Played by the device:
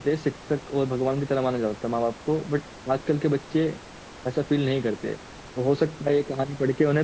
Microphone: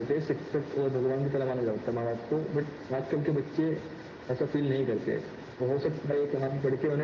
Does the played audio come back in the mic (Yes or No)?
Yes